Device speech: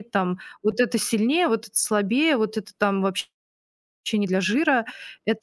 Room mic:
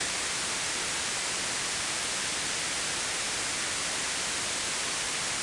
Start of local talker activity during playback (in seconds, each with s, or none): none